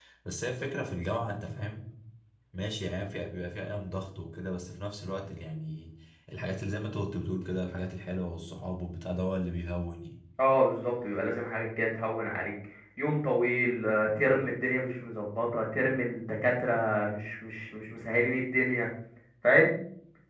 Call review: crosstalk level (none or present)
none